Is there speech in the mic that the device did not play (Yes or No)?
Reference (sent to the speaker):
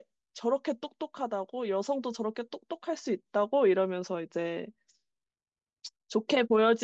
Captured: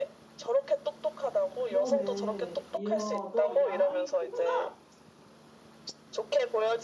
Yes